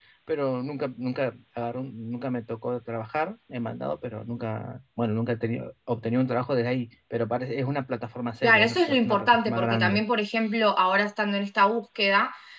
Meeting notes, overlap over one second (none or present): present